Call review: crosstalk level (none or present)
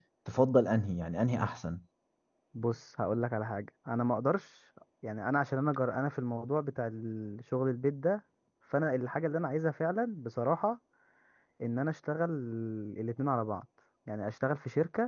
none